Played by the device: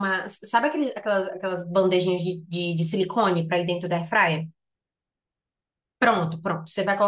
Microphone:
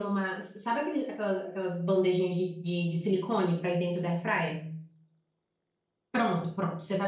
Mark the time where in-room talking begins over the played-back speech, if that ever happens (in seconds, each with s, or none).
none